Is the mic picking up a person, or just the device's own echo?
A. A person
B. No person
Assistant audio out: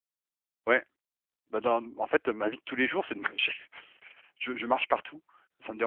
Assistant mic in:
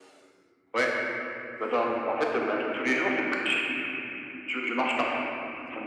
B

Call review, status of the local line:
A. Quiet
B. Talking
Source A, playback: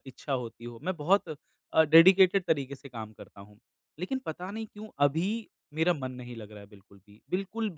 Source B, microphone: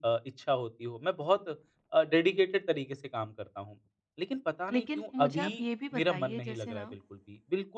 B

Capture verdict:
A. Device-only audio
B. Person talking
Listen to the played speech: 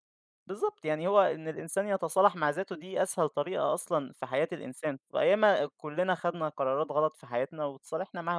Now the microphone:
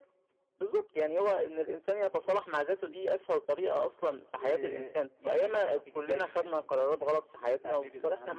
B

